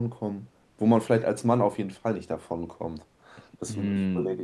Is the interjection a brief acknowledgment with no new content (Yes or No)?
No